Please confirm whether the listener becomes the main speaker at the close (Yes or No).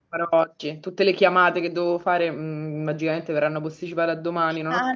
Yes